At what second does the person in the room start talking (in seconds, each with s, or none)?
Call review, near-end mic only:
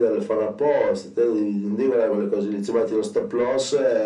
none